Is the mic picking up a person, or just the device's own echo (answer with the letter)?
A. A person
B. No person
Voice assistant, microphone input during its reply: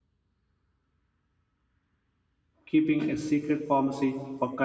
A